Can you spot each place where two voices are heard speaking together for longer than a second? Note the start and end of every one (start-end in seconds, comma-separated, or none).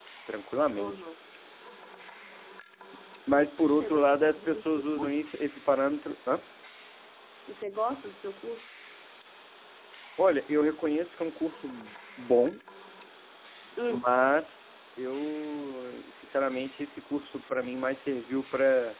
3.8-5.2